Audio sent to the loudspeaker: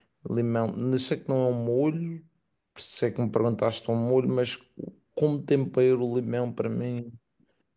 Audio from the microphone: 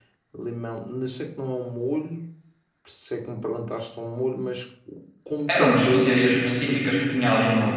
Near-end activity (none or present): present